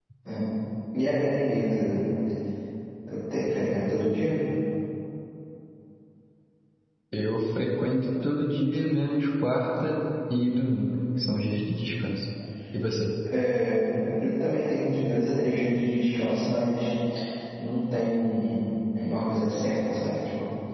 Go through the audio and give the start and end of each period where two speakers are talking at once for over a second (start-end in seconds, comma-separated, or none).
none